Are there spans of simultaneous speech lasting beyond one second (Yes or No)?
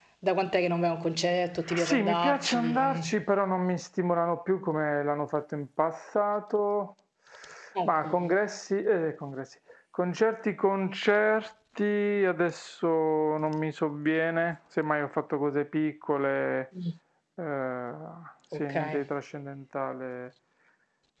Yes